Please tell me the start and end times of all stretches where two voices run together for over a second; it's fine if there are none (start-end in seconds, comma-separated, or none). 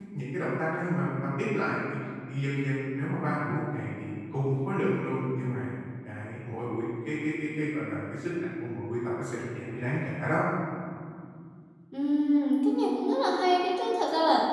none